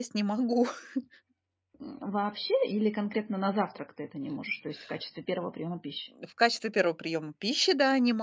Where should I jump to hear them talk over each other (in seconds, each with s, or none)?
none